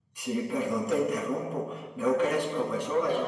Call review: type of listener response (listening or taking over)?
listening